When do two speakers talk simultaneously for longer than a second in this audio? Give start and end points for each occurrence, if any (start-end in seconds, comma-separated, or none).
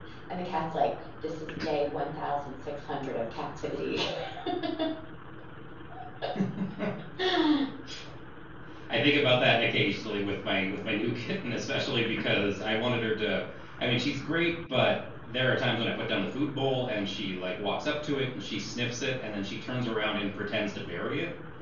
none